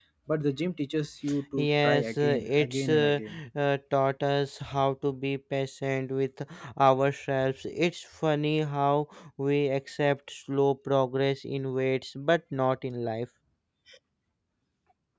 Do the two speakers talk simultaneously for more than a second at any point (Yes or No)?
Yes